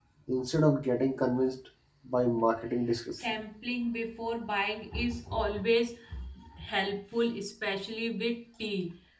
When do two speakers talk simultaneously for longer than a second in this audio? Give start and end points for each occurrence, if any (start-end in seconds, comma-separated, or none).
none